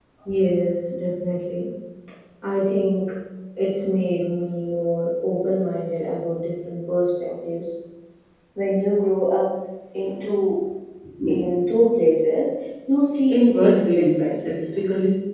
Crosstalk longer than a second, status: present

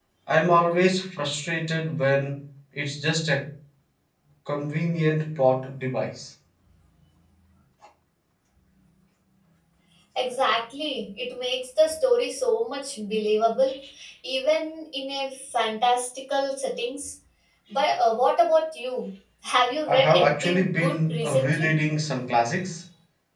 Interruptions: present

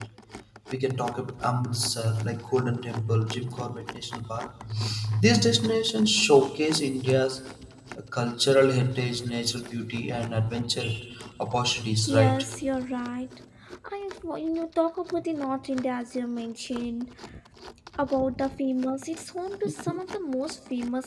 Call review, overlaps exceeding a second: none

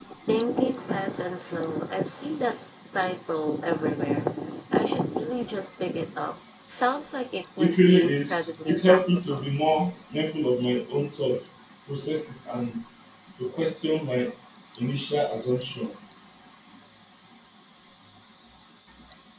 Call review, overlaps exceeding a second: present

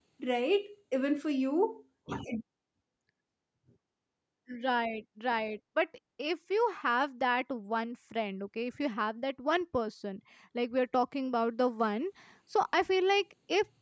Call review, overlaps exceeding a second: none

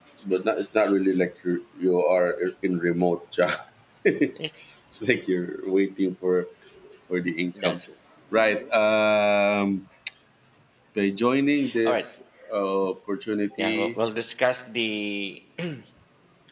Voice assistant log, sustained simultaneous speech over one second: none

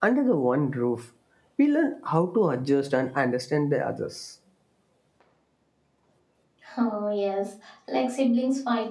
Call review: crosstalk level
none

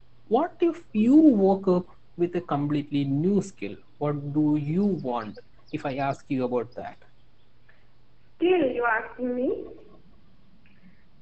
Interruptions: none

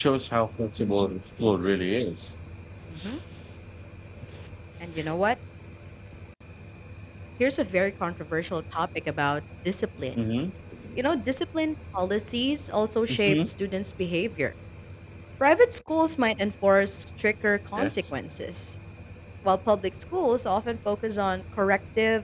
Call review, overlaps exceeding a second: none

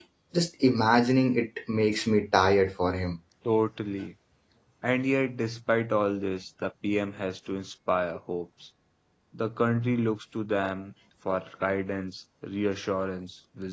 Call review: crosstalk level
none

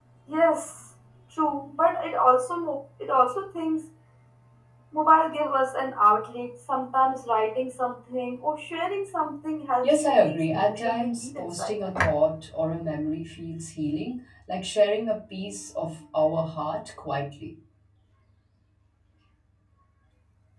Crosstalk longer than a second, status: present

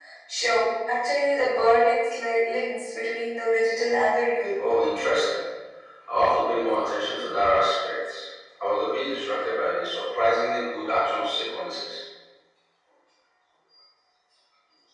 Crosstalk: none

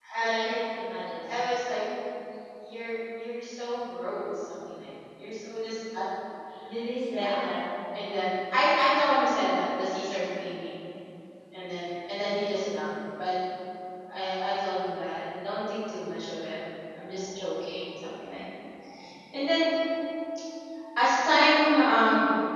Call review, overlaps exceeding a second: none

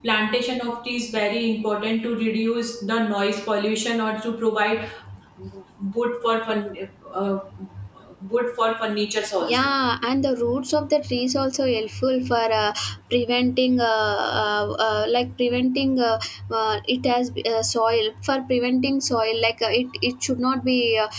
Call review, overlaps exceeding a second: none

